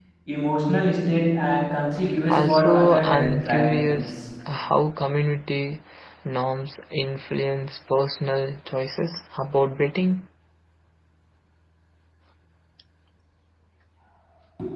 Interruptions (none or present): present